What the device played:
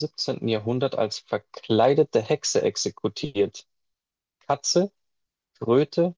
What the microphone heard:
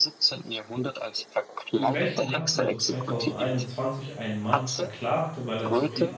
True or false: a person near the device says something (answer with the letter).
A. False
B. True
B